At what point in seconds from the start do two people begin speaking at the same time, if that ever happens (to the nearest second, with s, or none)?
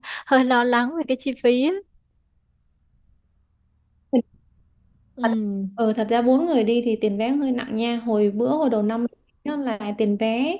none